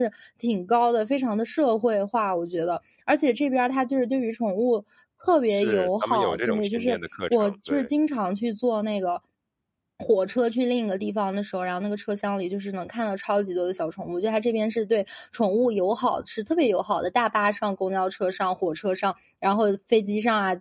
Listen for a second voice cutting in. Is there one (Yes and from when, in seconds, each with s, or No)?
Yes, from 5.5 s